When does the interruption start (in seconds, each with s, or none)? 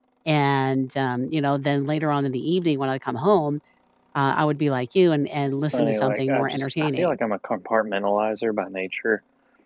5.7 s